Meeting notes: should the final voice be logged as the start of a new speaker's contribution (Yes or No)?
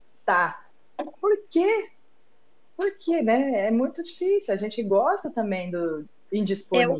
Yes